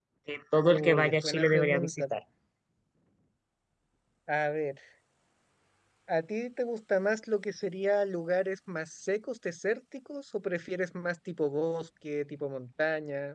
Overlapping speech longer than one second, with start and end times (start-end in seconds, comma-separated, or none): 0.6-2.0